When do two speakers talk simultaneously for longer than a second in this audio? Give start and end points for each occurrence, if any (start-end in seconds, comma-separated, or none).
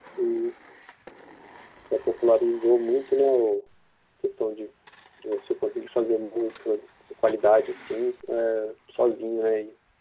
none